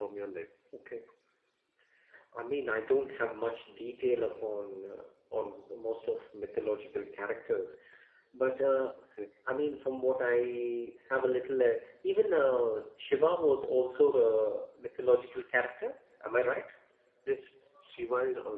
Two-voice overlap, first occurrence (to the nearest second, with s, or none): none